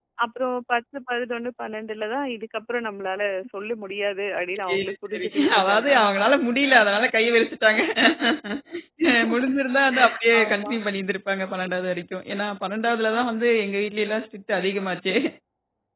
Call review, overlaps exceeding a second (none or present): present